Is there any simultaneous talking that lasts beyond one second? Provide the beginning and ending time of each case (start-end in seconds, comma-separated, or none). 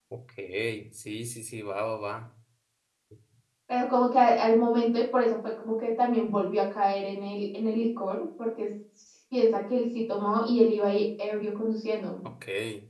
none